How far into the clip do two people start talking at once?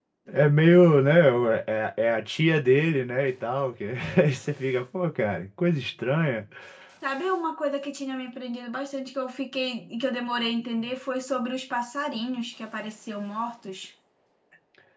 none

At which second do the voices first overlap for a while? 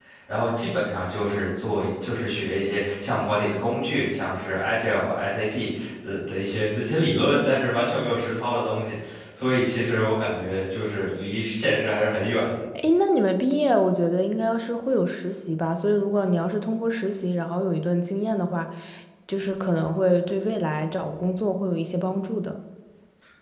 none

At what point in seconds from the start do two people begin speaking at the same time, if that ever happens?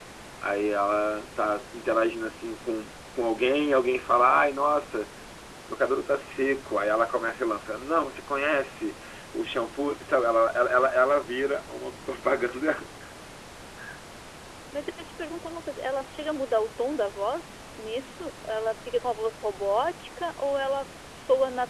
none

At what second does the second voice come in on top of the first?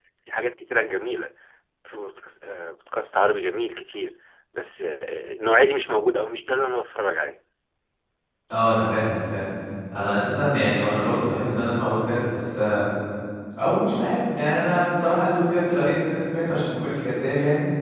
none

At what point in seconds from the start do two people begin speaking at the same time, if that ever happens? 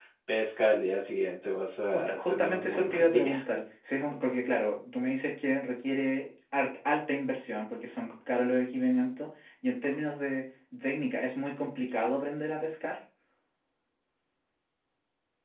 1.9 s

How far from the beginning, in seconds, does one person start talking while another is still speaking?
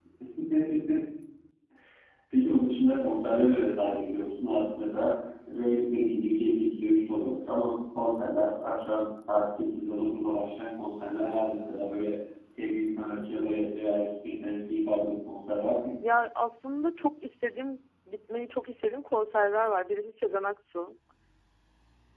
none

